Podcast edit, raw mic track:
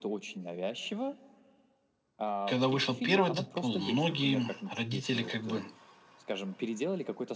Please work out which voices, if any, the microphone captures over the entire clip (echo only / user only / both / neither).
both